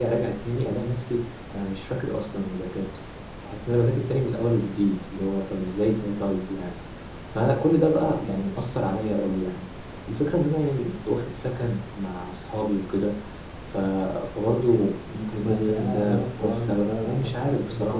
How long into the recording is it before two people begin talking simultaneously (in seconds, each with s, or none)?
15.4 s